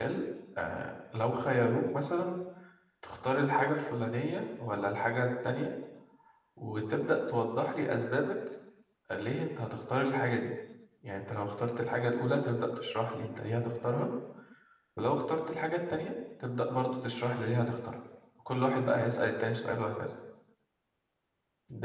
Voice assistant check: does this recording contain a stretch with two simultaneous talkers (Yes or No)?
No